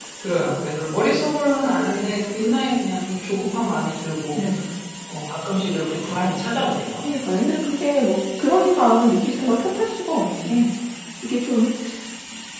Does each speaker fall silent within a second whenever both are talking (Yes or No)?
Yes